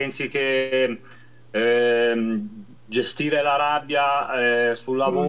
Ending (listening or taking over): listening